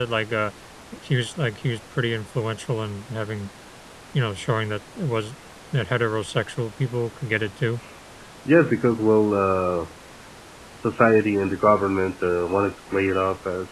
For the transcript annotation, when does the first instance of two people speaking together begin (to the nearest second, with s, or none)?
none